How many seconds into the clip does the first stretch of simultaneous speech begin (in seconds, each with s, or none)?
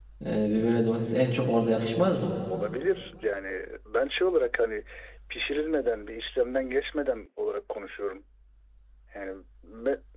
none